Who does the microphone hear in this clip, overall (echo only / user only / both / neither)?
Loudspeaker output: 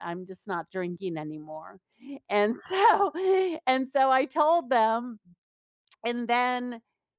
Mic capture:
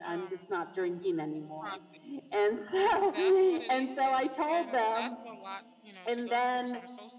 both